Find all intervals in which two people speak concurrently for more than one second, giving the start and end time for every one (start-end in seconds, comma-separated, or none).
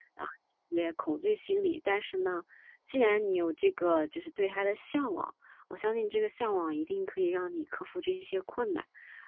none